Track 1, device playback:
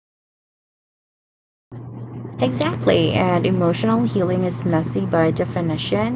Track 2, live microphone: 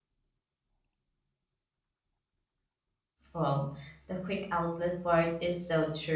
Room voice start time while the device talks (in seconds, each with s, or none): 3.3 s